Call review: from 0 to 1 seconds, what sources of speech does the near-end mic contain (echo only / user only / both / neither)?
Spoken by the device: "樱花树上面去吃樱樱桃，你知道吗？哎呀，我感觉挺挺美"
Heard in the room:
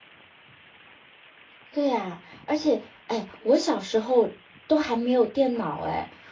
neither